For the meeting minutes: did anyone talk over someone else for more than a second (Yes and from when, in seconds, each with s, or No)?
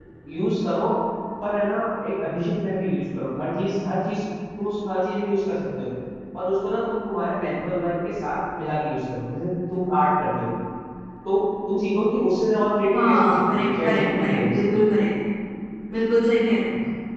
Yes, from 12.9 s